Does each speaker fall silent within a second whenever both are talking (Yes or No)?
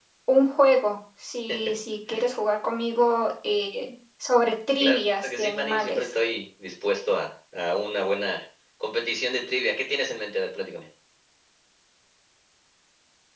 No